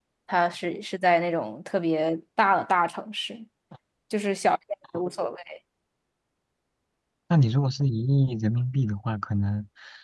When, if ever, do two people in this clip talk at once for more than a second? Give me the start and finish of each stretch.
none

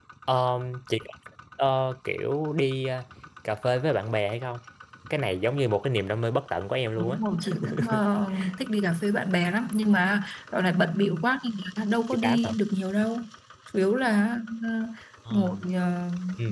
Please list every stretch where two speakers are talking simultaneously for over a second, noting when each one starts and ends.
none

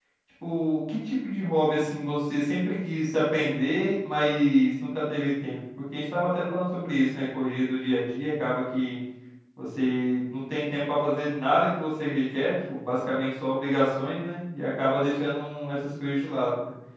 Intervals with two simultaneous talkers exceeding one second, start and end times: none

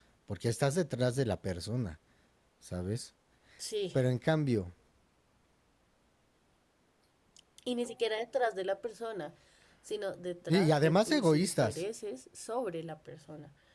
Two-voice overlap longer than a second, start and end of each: 10.5-11.8

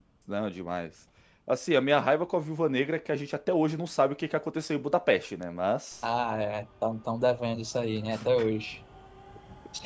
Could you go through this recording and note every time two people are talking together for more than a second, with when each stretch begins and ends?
none

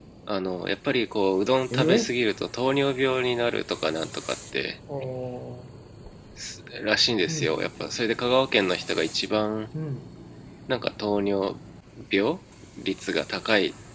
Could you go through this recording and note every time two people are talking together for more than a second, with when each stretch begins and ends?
none

